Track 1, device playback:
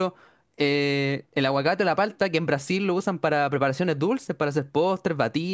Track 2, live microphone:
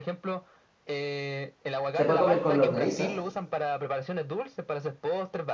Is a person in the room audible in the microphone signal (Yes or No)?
Yes